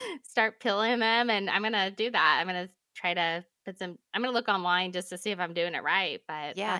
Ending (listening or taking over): taking over